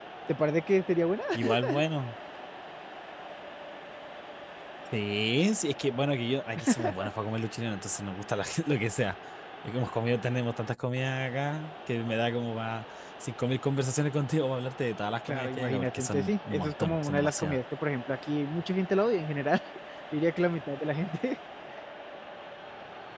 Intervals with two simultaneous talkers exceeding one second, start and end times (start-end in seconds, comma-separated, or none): 15.3-17.6